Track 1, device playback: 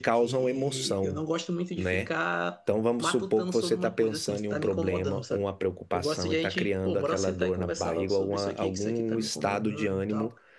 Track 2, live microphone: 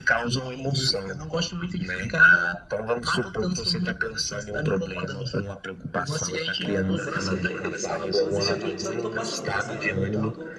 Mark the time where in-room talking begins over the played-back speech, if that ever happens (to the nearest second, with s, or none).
7 s